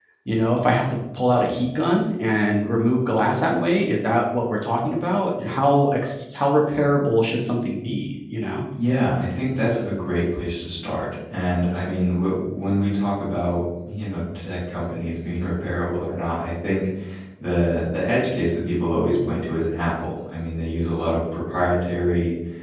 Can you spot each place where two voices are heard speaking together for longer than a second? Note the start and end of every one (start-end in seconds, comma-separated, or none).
none